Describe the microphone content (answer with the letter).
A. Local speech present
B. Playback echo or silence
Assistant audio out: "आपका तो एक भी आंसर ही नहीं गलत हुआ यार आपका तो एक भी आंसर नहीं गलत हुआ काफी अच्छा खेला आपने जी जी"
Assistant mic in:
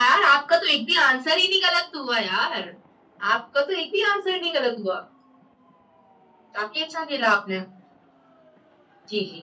B